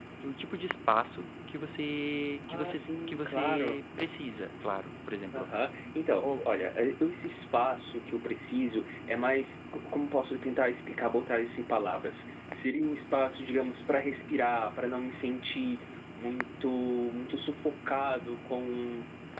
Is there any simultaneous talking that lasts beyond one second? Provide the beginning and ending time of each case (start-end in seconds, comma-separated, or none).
2.5-3.8